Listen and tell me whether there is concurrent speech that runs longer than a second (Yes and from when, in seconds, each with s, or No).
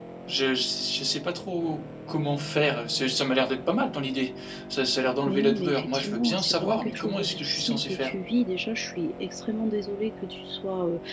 Yes, from 5.3 s